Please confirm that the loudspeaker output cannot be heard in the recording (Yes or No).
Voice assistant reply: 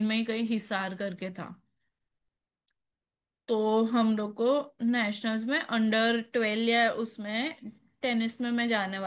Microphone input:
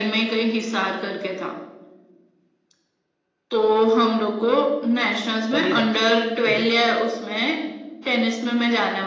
No